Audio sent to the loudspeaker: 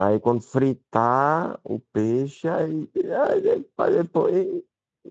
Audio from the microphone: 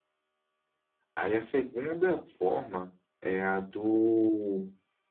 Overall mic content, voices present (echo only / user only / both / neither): user only